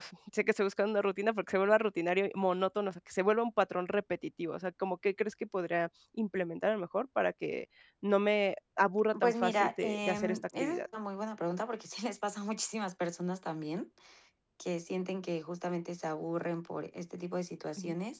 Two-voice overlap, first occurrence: 9.1 s

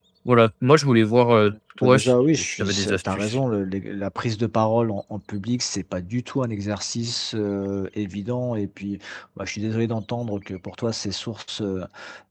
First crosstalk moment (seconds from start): 1.8 s

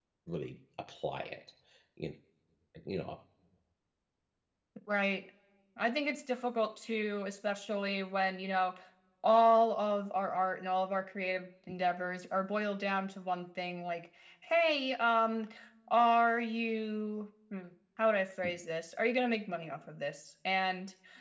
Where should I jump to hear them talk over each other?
none

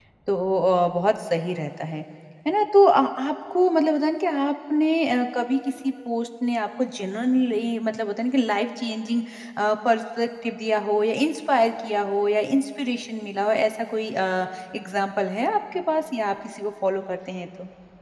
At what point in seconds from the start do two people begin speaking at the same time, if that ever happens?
none

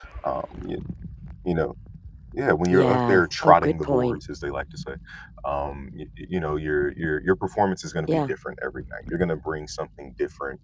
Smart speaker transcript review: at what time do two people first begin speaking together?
2.7 s

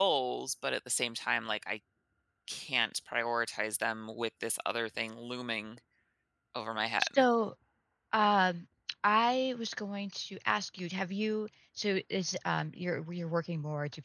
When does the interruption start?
none

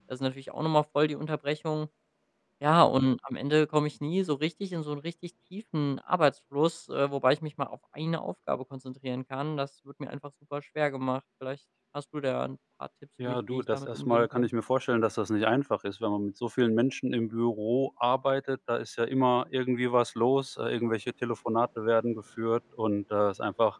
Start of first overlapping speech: 13.2 s

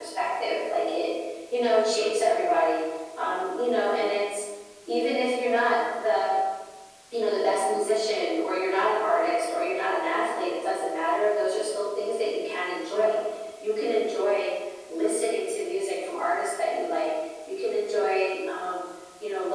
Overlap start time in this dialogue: none

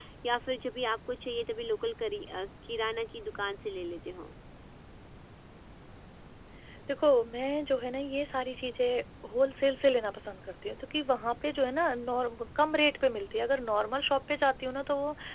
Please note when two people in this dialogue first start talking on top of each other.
none

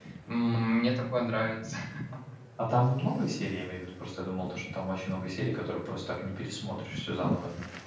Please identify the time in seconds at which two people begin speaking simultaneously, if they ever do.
none

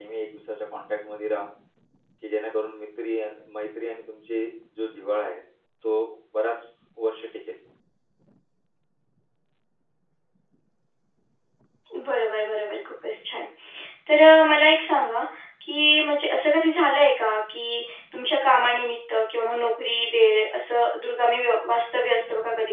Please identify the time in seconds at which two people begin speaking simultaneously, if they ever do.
none

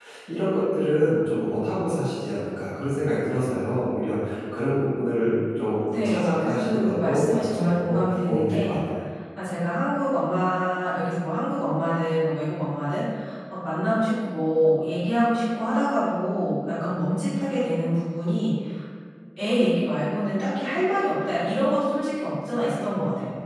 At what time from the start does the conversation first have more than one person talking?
5.9 s

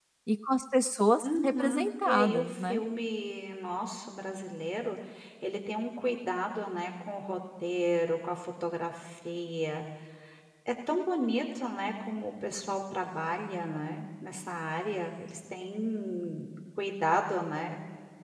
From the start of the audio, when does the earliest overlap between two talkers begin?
1.2 s

